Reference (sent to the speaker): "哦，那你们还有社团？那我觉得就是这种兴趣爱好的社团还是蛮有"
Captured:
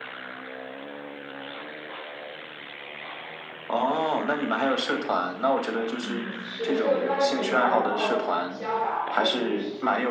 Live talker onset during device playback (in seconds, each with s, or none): 6.0 s